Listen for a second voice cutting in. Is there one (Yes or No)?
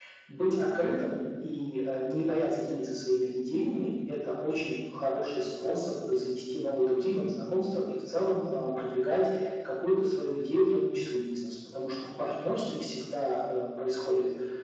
No